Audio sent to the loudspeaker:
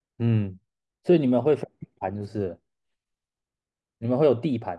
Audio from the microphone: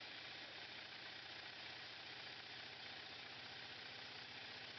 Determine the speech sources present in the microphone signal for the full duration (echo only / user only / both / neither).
neither